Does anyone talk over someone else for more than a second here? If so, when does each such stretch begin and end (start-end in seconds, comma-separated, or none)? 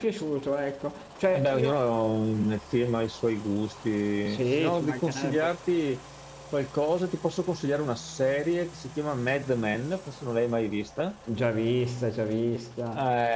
4.3-5.5